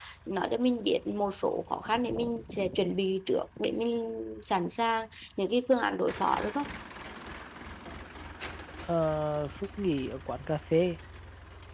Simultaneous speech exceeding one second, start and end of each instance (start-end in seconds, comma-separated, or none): none